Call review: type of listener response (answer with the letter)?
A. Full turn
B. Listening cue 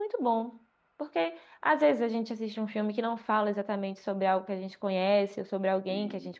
B